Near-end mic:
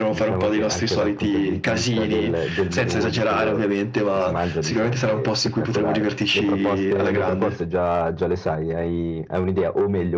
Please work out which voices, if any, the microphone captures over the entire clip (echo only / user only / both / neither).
echo only